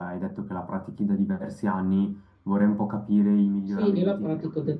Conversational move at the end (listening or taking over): taking over